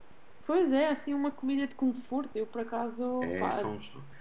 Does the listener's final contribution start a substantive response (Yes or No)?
Yes